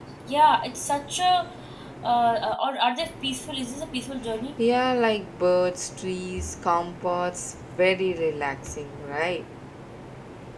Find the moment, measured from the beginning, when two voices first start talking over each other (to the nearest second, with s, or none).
none